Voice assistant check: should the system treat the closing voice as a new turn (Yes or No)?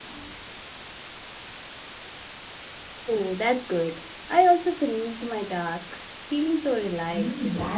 Yes